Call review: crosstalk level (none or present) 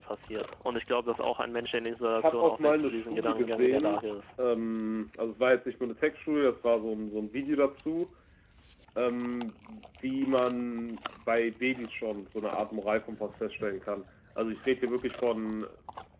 present